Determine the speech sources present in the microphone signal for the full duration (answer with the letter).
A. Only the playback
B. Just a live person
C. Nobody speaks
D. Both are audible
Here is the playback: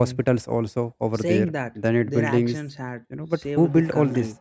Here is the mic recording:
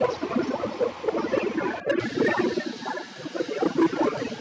A